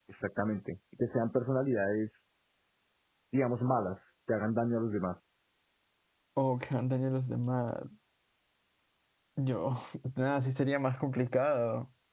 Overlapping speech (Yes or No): No